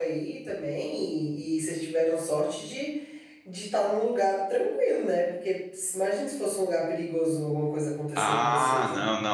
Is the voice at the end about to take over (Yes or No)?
Yes